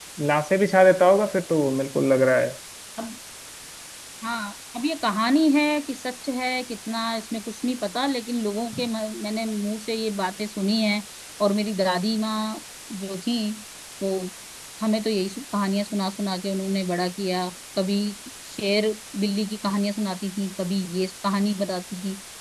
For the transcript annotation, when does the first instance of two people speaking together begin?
none

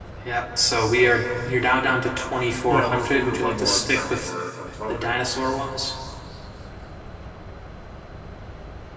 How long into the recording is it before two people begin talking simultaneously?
3 s

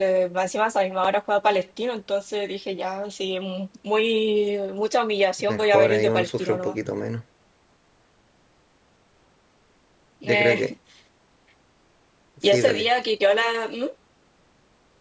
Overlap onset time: 5 s

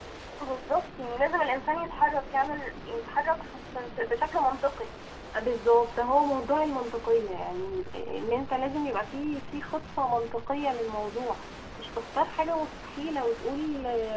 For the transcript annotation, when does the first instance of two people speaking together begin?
none

